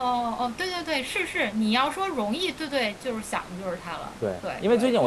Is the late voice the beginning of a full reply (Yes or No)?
Yes